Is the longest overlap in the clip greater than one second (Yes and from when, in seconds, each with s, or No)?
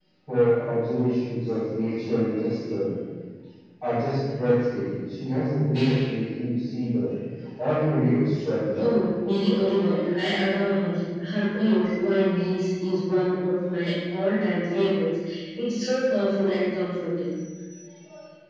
No